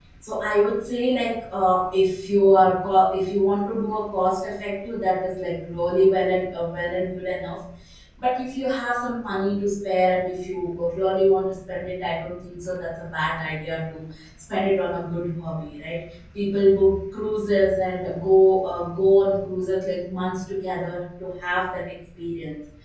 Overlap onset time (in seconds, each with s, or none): none